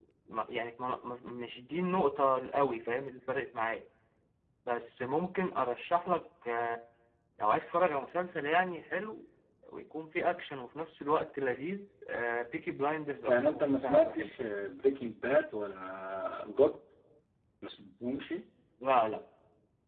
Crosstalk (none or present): present